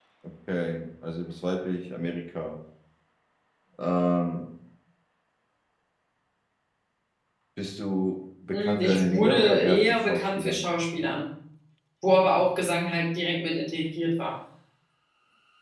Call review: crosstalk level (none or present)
present